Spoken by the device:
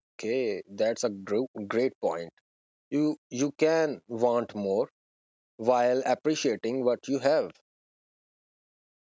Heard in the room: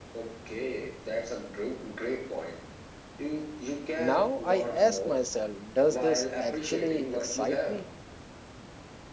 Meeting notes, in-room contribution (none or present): present